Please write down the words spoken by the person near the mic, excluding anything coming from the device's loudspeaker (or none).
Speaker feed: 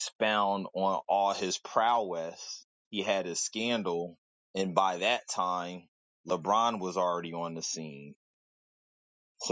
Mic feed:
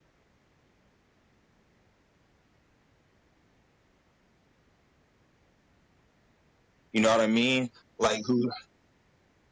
You know what I mean? Like who?